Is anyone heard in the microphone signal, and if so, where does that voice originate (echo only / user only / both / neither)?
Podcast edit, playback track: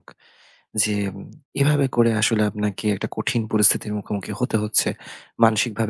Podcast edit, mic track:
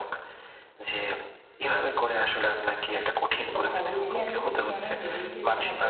both